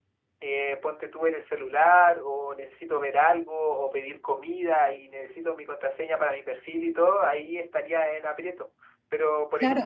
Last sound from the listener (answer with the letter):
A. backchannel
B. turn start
B